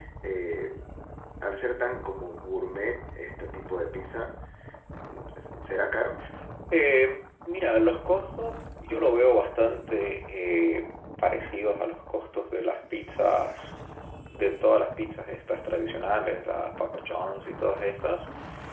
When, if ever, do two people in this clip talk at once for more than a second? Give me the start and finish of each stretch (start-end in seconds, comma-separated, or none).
none